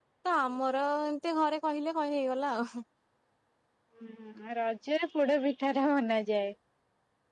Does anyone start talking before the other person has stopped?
No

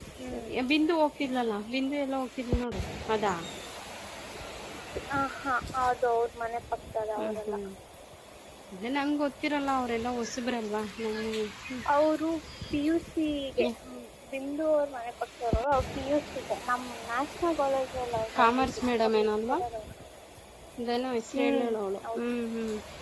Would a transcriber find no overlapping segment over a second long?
No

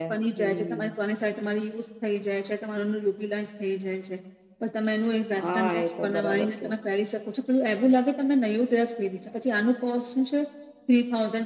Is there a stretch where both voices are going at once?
Yes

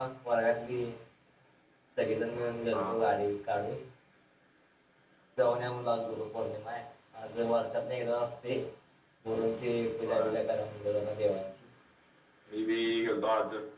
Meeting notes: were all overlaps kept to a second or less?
Yes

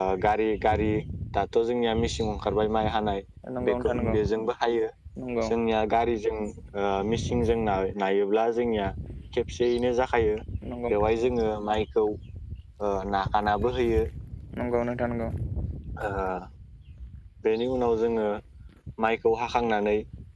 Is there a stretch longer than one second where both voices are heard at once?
No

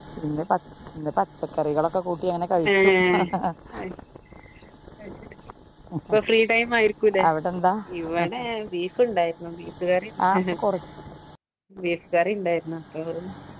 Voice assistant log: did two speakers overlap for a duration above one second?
No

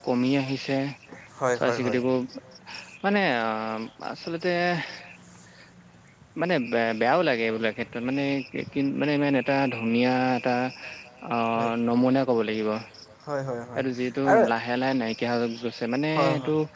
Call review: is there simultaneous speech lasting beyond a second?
No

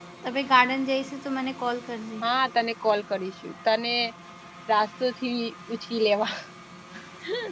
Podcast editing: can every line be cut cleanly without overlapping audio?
Yes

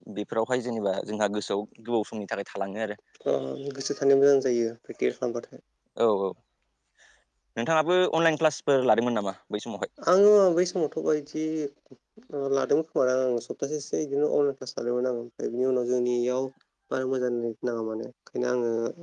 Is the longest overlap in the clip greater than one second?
No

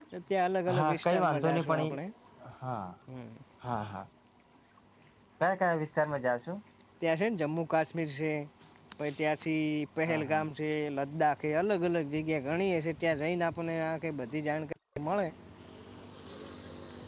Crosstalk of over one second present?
Yes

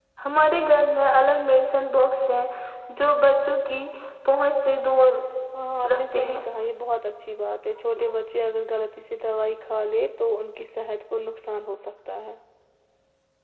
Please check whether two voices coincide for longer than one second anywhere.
No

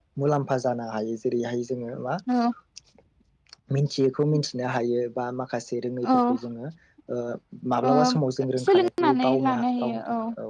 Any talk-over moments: Yes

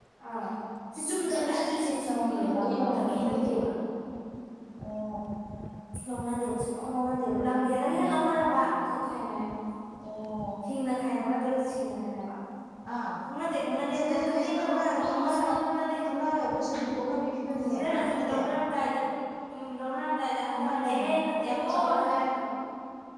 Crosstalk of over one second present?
Yes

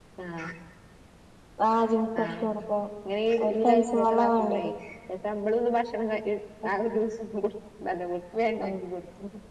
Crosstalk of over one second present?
Yes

